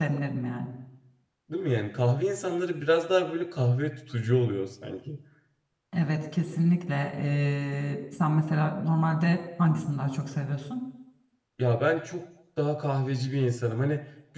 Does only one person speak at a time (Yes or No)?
Yes